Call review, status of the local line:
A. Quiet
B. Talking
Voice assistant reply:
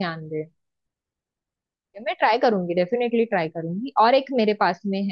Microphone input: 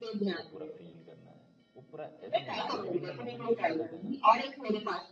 B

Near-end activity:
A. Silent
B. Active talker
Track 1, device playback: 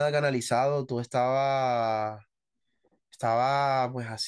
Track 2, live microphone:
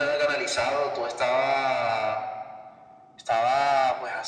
A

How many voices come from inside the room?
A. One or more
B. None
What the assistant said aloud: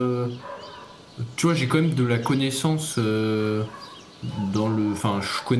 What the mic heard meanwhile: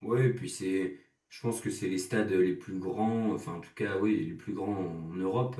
A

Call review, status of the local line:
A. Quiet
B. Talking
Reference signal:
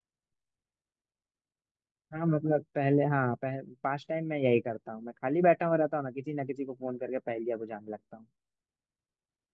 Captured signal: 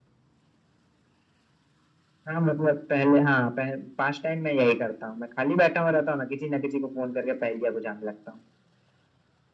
A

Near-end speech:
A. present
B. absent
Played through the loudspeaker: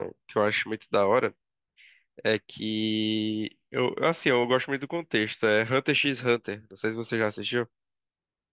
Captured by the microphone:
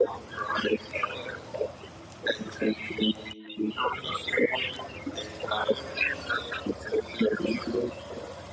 B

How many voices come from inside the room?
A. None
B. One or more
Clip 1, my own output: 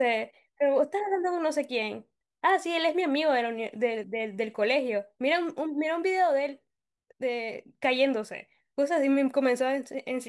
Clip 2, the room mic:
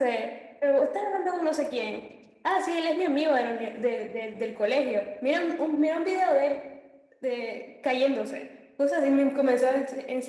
A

